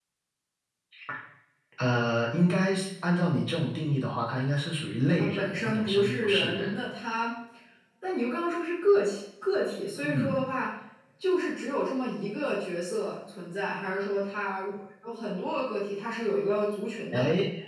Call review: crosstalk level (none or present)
present